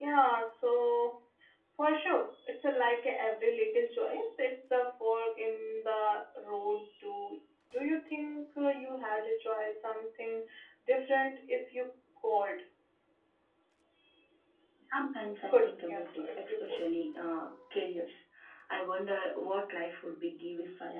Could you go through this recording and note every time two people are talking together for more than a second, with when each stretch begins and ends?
15.5-16.8

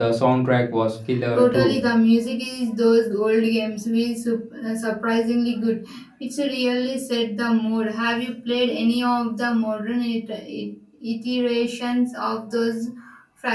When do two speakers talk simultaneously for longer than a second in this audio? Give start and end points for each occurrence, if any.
none

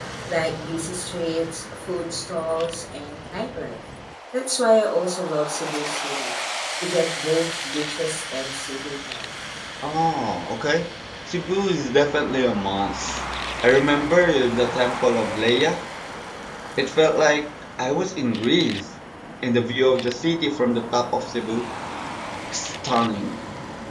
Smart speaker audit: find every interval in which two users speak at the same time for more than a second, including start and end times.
none

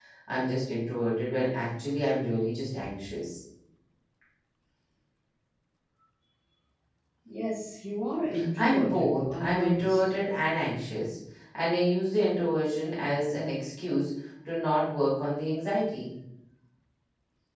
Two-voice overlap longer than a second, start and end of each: 8.6-10.0

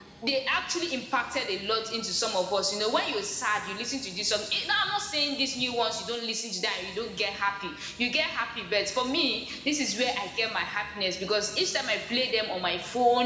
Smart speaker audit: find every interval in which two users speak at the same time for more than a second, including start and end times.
none

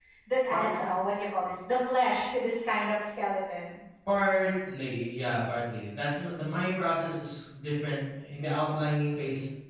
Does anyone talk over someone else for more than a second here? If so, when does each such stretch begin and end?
none

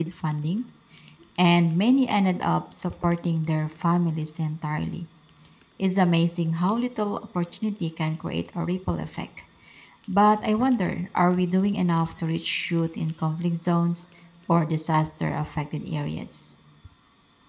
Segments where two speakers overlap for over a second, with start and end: none

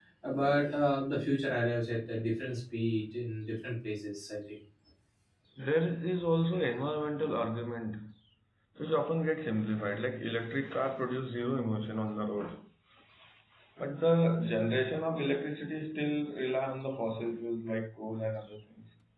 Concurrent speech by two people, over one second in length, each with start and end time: none

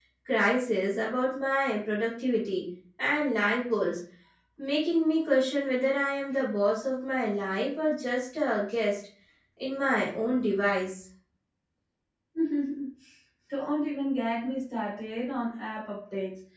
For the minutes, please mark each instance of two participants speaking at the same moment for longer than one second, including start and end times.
none

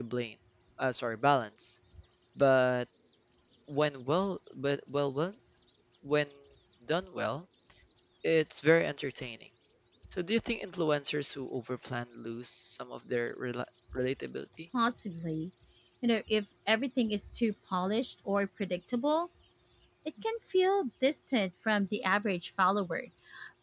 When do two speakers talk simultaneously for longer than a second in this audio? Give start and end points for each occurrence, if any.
none

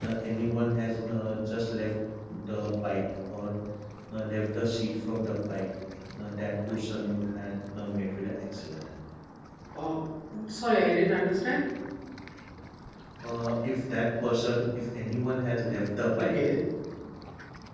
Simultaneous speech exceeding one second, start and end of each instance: none

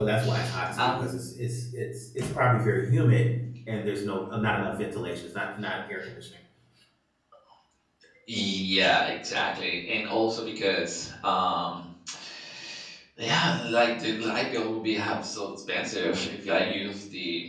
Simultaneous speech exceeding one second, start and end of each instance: none

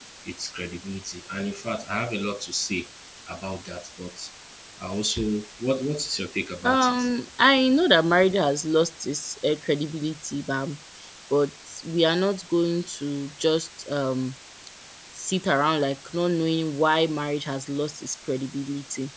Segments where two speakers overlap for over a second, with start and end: none

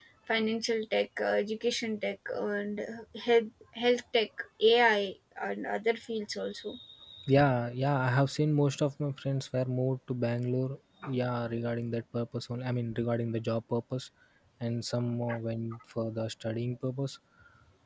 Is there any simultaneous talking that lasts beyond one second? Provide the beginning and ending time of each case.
none

